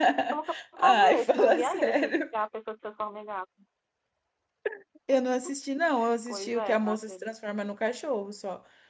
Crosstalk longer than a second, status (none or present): present